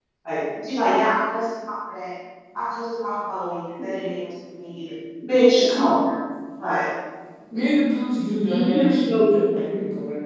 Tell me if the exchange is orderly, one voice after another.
No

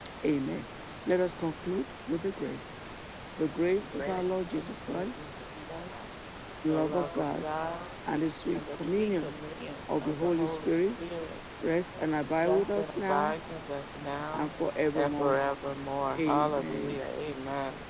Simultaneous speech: Yes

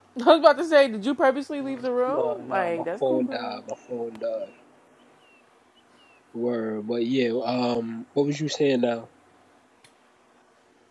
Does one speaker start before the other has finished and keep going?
Yes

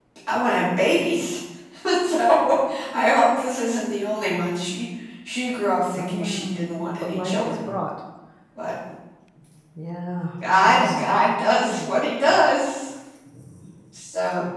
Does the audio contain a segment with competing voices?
Yes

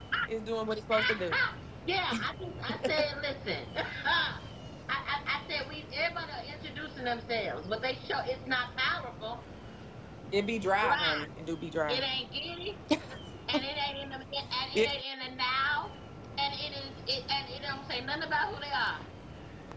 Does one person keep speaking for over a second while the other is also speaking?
No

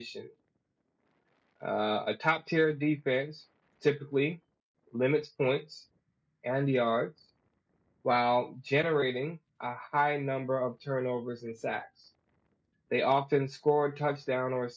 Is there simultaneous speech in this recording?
No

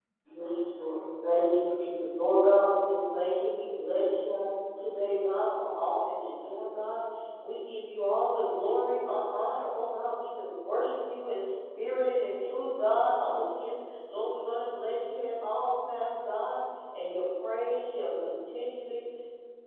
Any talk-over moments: No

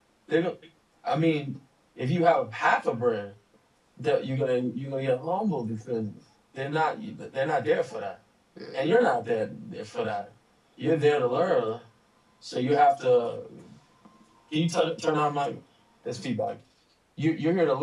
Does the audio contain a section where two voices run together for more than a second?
Yes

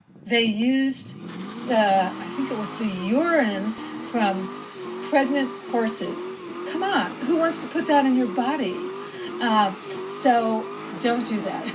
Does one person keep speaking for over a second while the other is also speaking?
No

